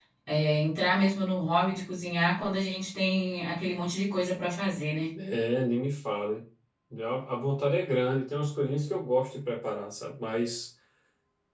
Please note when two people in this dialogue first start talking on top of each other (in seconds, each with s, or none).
none